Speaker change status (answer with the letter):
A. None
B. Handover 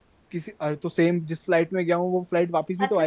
B